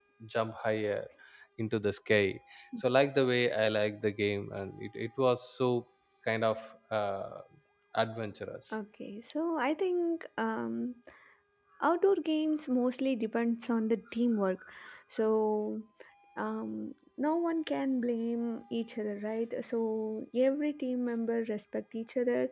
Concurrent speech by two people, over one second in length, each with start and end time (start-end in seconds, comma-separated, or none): none